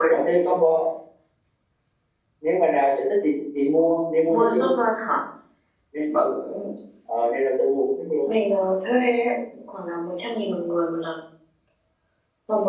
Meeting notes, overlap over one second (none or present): none